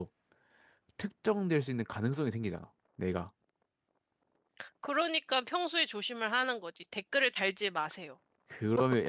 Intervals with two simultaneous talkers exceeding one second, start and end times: none

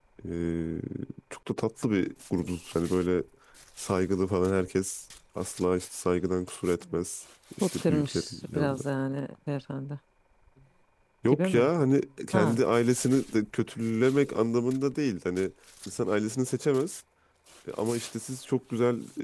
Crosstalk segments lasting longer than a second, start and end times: 7.6-8.8

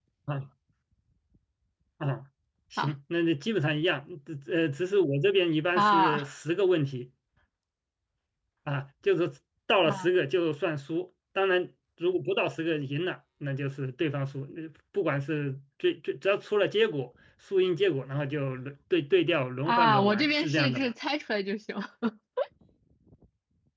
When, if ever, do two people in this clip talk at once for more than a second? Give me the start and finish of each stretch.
19.6-20.9

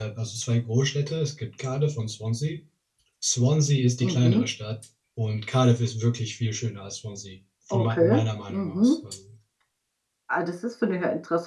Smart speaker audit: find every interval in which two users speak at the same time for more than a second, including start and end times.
7.7-9.0

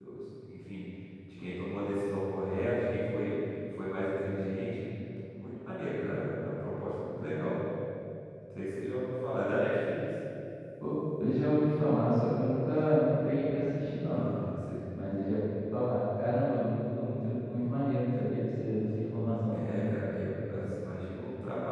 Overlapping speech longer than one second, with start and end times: none

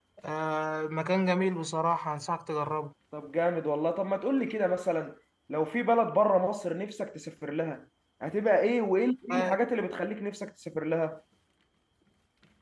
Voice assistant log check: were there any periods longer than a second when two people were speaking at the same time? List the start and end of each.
none

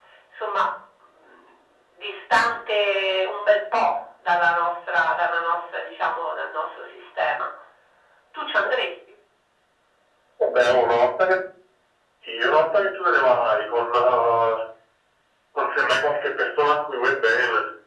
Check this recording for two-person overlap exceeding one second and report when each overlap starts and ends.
none

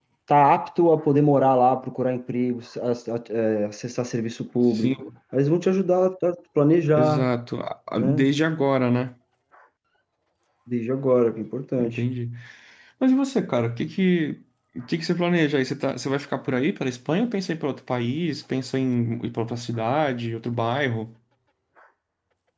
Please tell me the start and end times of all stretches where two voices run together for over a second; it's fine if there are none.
none

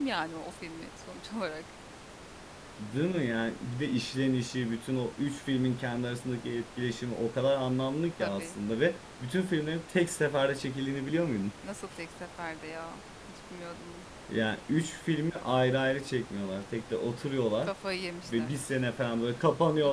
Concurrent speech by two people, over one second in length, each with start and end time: none

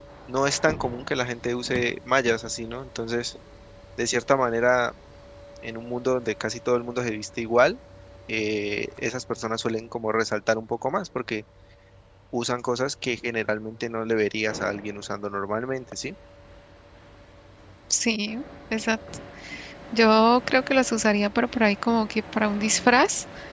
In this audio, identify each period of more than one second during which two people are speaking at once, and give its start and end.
none

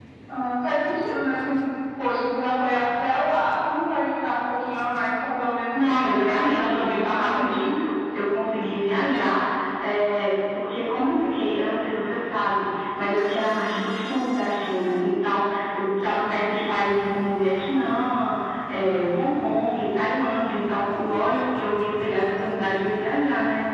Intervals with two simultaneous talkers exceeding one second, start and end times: 5.7-7.8

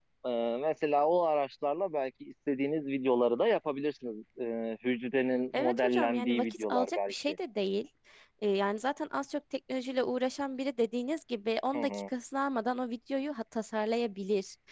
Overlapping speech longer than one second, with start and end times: 5.5-7.4

